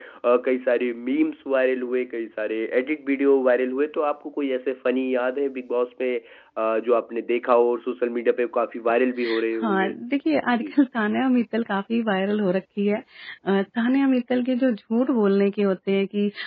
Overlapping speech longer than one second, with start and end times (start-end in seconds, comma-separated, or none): none